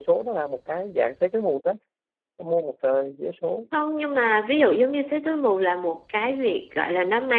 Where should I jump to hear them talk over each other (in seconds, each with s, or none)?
none